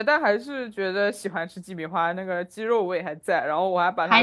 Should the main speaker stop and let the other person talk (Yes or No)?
No